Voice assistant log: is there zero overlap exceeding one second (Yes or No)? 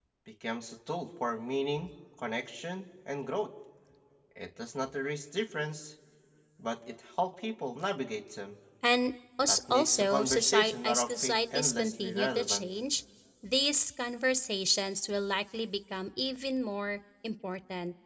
No